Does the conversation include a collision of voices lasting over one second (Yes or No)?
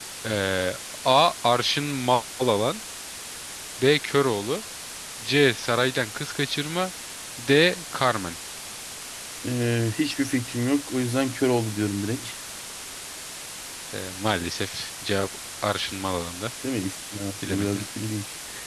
No